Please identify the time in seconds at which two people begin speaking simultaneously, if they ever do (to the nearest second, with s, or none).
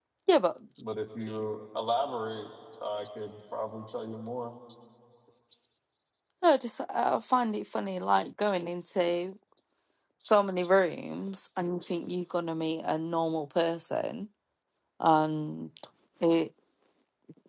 none